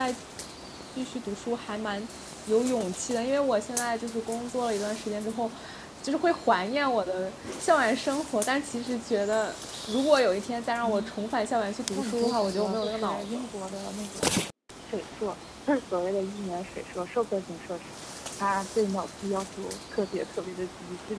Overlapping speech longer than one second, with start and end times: 11.9-13.5

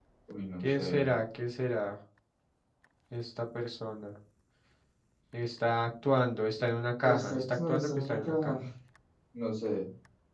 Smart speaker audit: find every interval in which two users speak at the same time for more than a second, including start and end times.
7.0-8.6

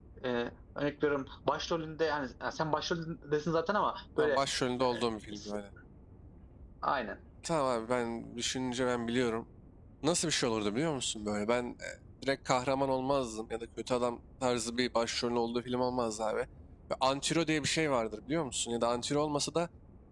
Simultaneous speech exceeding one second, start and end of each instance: none

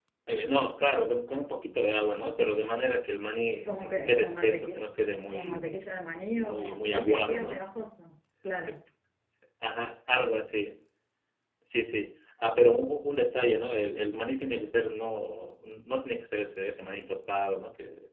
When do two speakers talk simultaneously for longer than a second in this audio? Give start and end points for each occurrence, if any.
3.6-4.9, 6.3-7.6

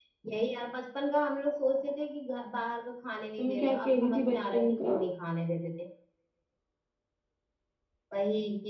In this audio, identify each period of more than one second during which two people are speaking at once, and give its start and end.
3.4-5.0

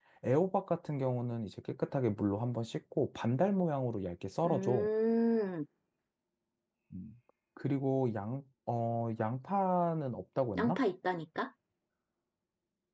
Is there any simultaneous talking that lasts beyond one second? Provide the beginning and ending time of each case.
none

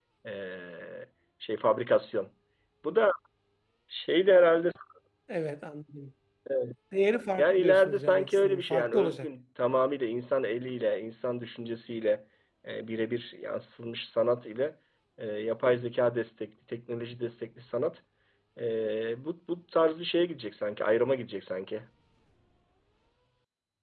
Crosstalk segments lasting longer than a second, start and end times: 7.4-9.3

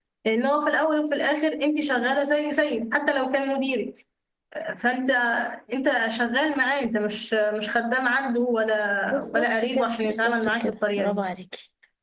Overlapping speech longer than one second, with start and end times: 9.3-11.0

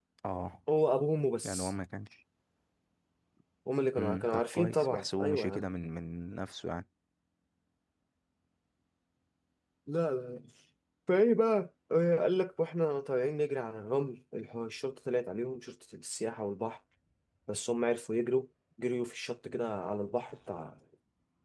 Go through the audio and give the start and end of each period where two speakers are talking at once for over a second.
4.0-5.7

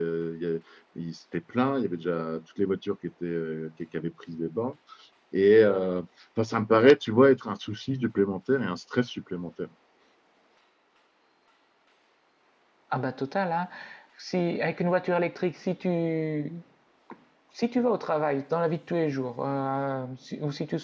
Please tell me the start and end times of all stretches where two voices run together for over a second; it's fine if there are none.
none

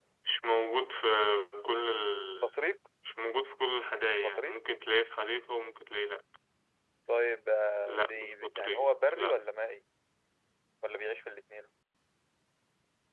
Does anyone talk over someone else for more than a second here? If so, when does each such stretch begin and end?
7.9-9.3

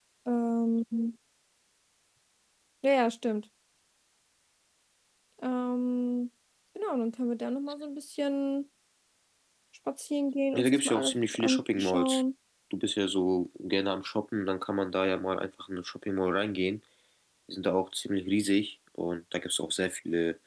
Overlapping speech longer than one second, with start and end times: 10.5-12.2

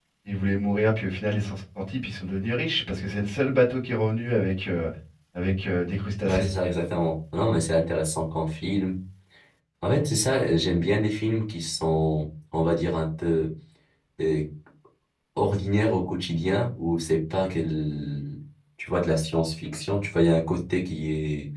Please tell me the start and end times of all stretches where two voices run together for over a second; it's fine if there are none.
none

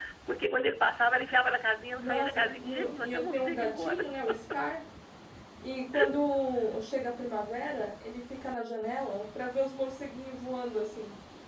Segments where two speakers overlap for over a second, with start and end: 2.0-4.1

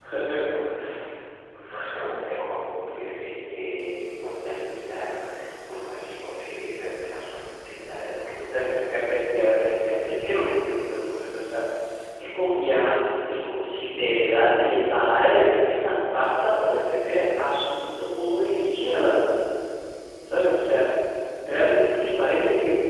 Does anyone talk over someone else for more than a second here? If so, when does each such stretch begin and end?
none

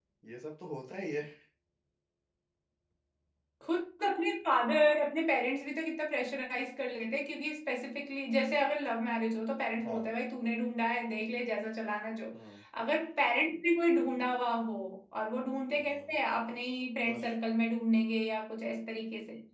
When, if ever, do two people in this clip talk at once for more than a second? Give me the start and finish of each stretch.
none

